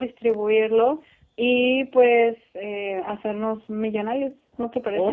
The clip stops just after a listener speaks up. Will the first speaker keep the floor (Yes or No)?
No